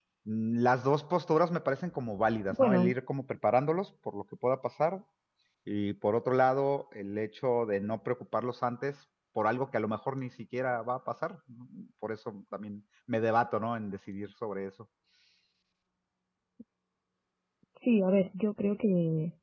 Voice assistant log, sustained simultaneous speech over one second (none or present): none